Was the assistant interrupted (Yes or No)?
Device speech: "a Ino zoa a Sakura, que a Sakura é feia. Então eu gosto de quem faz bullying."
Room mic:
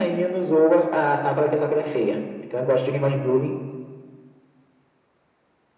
No